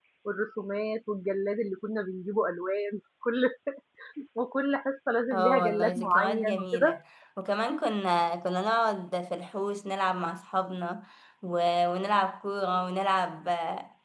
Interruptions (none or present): present